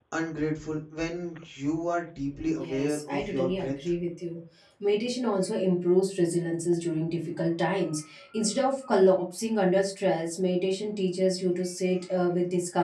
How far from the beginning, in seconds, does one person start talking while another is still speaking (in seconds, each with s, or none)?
2.6 s